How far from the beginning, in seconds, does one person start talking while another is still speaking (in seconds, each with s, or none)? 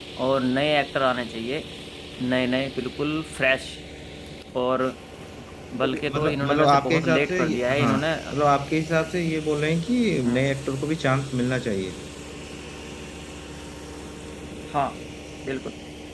5.8 s